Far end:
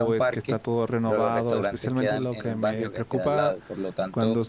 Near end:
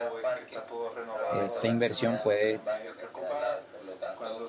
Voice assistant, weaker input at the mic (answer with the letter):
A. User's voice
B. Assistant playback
B